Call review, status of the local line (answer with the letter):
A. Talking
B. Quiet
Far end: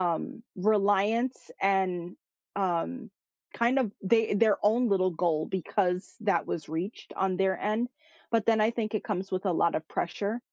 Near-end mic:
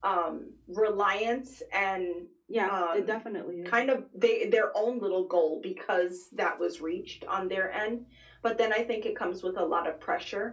A